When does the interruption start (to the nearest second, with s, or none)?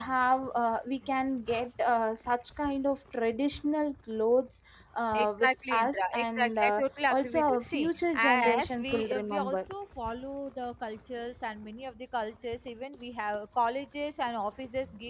5 s